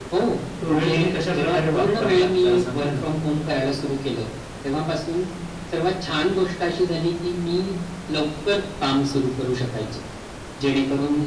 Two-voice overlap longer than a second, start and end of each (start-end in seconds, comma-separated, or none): 1.3-3.0